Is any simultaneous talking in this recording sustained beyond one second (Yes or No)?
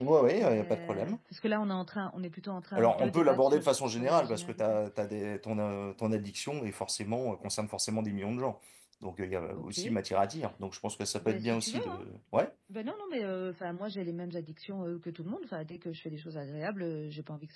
Yes